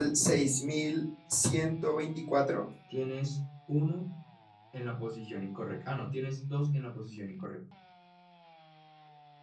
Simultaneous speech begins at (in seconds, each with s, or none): none